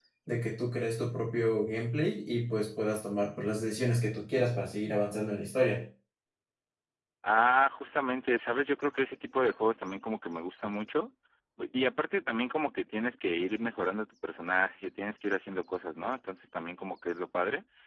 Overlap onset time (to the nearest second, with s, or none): none